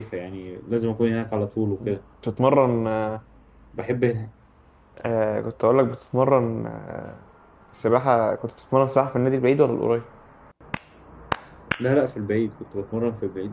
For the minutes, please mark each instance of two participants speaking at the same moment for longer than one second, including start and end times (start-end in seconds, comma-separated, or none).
none